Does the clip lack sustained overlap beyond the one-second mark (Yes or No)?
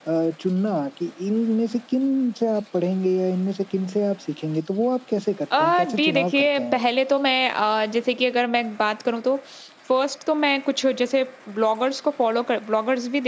No